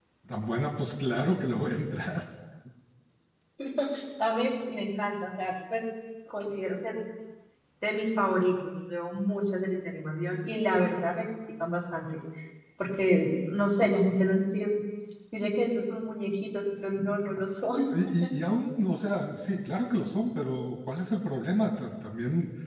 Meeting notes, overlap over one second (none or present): none